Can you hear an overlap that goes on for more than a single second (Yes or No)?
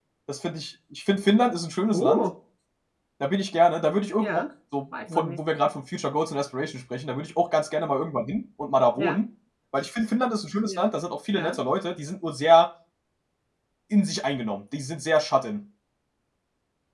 No